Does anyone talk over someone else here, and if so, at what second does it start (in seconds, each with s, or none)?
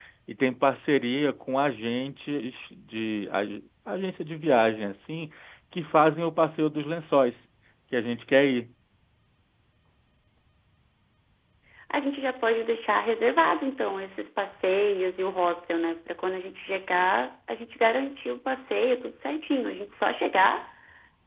none